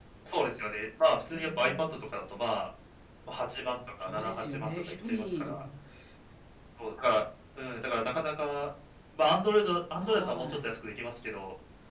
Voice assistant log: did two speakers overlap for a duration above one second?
Yes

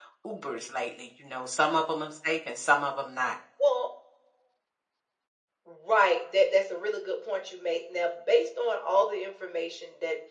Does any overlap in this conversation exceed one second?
No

